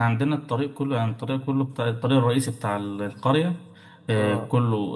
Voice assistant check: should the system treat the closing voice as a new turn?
No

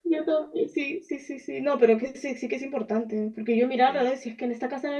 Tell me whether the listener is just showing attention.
Yes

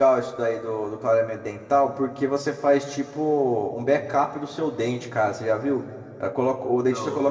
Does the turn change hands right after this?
No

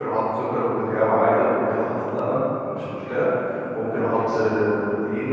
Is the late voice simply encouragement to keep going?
Yes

